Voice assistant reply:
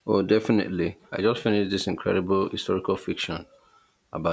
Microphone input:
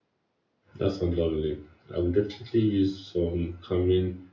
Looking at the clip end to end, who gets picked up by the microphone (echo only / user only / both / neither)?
user only